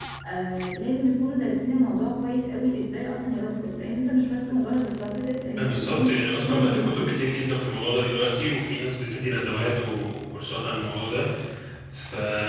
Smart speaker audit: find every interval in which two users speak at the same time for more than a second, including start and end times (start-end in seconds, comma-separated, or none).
5.6-7.1